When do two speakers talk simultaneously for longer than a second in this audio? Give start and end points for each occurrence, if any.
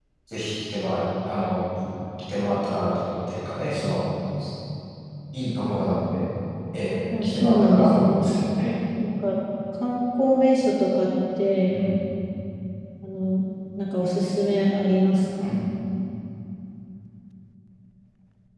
7.1-8.7

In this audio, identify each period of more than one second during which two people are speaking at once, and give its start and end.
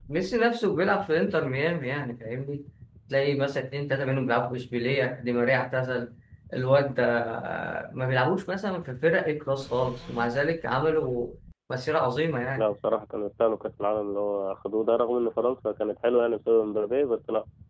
none

